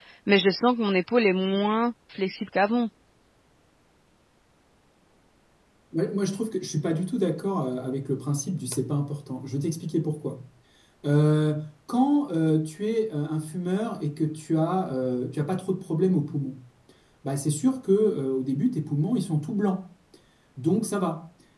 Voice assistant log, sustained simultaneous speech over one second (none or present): none